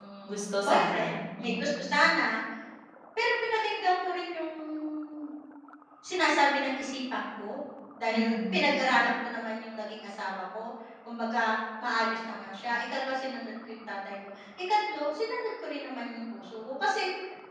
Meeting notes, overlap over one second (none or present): present